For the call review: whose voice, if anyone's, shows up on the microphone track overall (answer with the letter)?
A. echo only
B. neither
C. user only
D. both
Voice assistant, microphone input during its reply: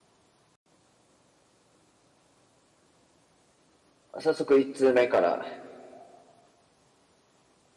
C